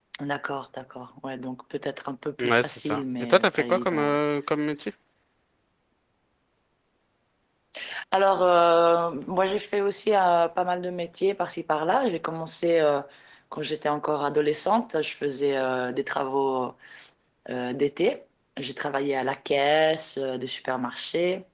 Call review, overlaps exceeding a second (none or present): present